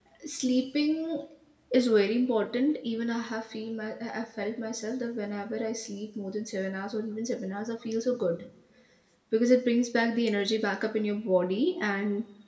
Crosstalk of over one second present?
No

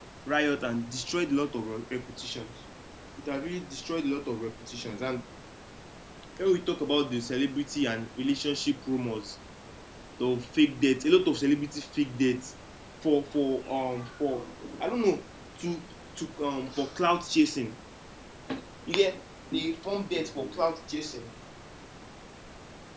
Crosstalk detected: No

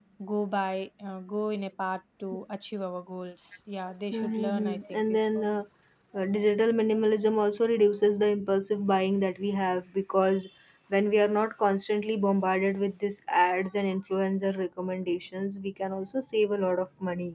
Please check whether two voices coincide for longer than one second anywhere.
Yes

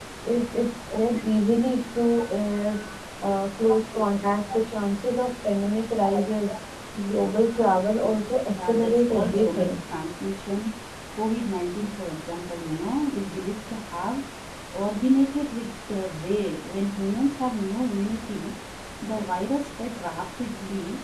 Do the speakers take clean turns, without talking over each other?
No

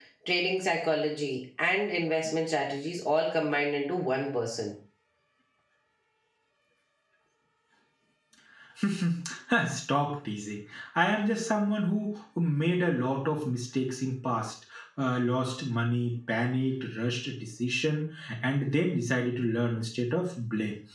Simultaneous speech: No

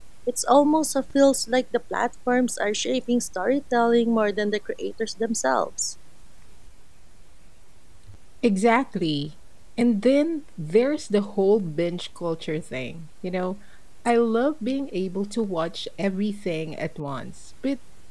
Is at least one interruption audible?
No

